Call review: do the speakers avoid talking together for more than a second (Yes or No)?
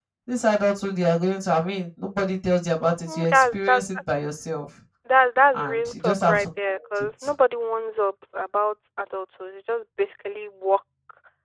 No